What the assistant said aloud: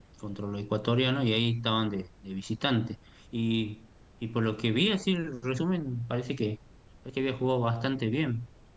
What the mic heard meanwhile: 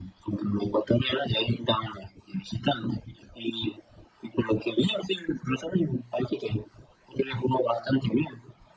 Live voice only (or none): none